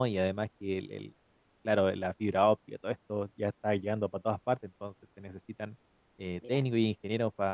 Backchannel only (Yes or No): Yes